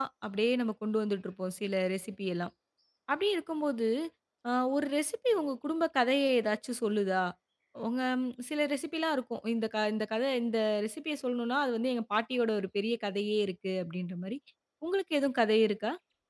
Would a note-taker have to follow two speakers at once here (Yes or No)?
No